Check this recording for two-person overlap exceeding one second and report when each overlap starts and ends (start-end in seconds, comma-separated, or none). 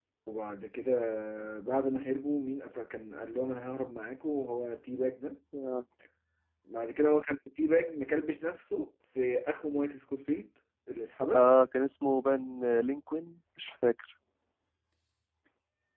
none